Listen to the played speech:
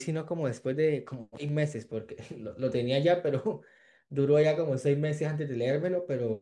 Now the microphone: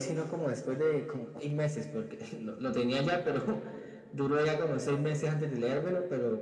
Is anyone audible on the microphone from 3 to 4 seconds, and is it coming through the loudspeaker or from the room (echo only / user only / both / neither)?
echo only